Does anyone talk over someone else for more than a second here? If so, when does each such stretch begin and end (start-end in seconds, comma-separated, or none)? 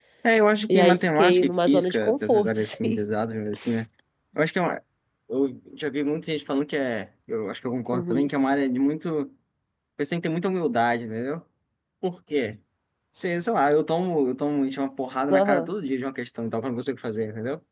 0.7-3.0